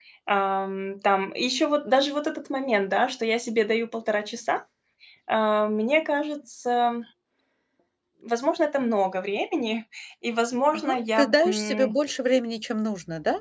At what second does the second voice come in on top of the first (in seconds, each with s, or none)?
10.7 s